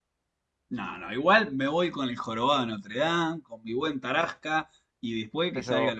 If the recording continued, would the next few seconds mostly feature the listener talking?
No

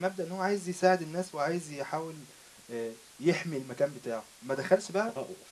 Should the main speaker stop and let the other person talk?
No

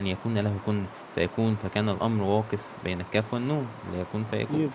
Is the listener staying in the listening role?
Yes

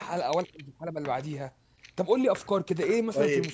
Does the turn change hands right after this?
Yes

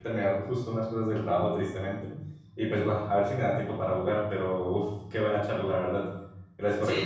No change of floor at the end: No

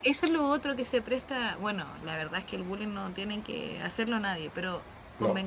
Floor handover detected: No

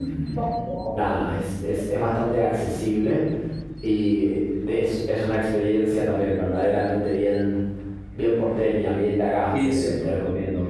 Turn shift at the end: No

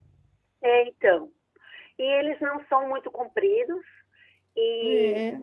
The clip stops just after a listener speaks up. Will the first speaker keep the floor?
Yes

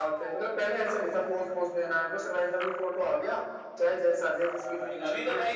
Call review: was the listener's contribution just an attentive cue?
No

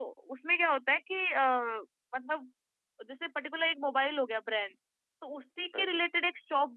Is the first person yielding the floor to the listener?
No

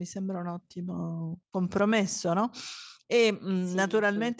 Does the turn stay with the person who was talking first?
Yes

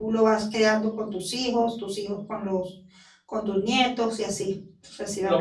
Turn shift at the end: Yes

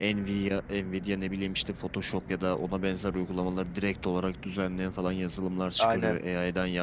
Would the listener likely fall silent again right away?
Yes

